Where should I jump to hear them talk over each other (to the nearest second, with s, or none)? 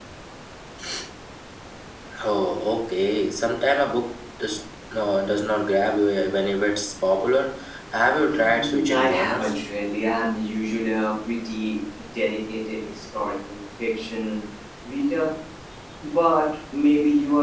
8 s